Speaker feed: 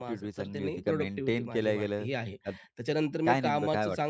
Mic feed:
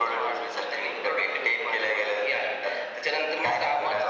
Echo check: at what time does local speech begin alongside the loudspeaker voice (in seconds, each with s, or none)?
none